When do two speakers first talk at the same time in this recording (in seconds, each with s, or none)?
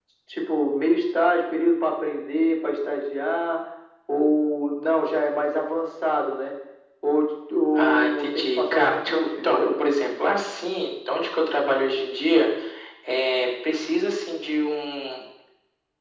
7.8 s